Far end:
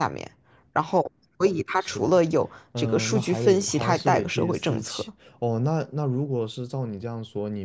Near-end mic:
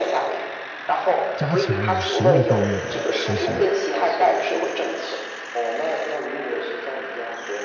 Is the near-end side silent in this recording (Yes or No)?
No